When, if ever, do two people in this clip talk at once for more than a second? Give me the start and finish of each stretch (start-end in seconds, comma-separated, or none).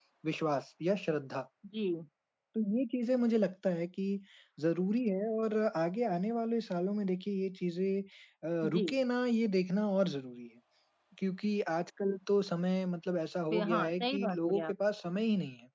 13.5-14.7